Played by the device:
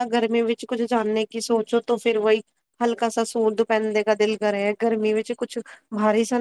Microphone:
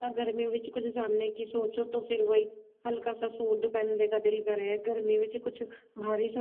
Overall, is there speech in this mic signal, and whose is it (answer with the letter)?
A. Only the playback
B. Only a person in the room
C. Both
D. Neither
A